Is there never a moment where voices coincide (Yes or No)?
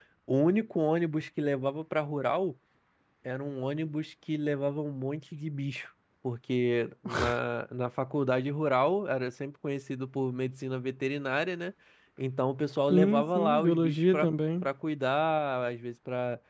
No